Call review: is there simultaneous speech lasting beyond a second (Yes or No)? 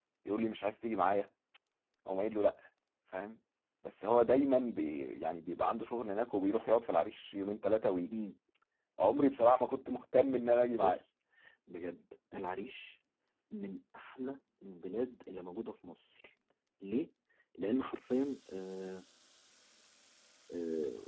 No